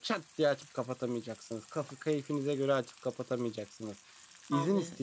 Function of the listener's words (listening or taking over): listening